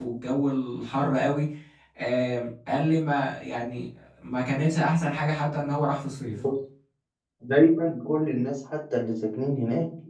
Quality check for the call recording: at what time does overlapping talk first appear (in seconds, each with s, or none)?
none